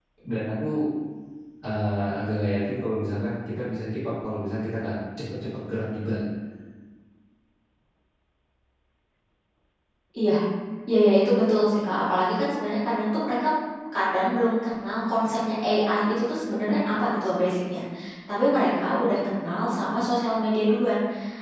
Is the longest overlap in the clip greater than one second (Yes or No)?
No